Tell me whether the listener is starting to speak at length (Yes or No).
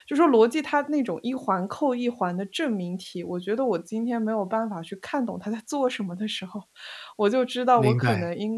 No